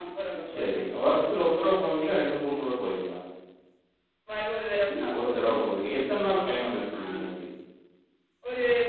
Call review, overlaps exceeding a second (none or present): none